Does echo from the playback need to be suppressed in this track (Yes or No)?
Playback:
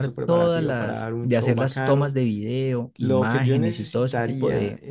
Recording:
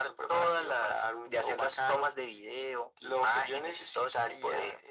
Yes